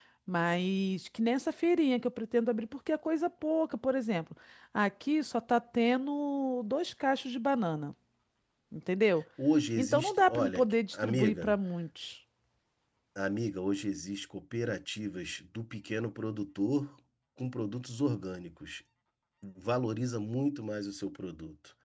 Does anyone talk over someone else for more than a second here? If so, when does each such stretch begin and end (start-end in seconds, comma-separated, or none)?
9.8-11.6